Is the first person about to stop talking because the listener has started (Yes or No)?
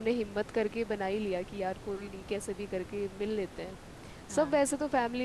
No